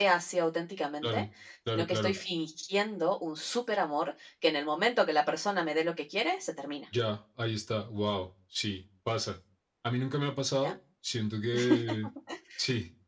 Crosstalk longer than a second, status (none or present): none